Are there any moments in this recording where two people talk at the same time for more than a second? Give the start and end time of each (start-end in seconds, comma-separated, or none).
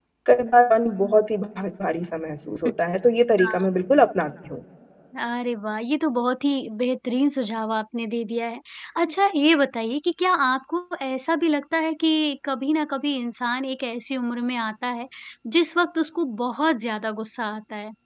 none